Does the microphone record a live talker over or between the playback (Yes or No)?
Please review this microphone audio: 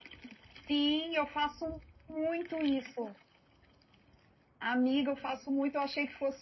No